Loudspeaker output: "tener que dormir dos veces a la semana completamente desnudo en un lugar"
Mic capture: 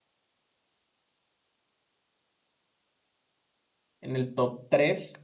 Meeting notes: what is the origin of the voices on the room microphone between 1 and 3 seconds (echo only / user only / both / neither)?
neither